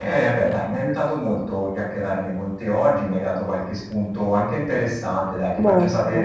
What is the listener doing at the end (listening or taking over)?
listening